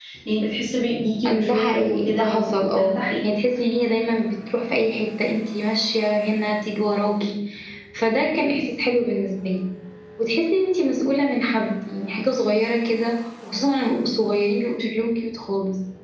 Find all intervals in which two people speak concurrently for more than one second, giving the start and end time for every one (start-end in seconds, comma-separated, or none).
1.3-3.4